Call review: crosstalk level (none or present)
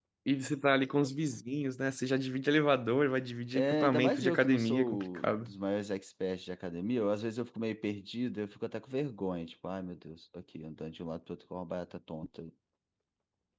present